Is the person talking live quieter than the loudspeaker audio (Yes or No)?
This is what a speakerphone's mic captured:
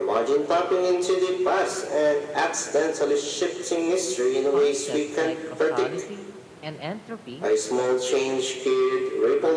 Yes